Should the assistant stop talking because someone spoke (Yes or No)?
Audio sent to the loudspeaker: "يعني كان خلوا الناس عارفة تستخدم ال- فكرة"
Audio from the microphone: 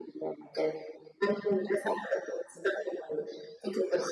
No